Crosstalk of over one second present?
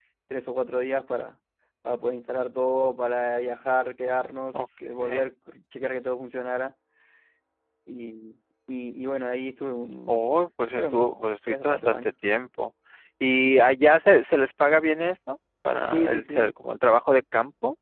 Yes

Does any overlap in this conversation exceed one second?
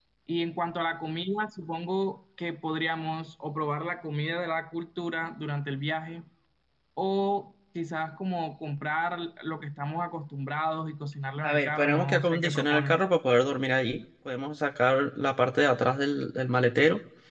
Yes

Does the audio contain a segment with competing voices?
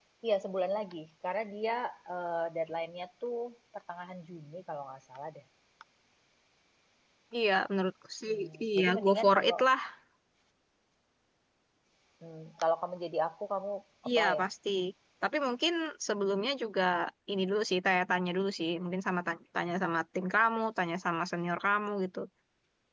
Yes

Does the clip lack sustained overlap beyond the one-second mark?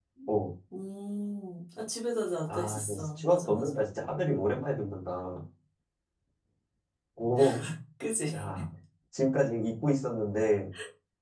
No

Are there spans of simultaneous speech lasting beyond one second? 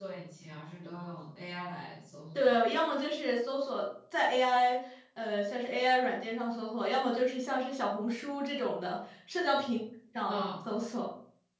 No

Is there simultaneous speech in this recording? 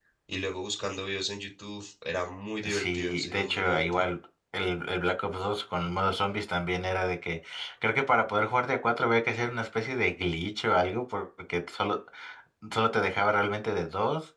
Yes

